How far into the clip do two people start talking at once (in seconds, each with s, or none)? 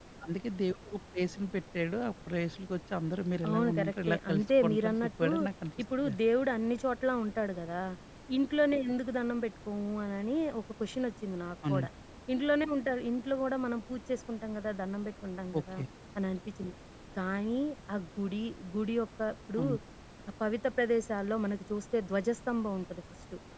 3.5 s